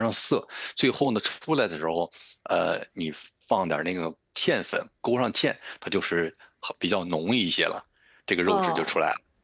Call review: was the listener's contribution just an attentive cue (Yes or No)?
No